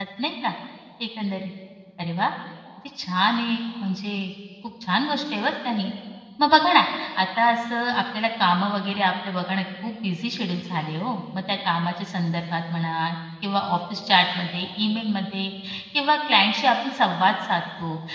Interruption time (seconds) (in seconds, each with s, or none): none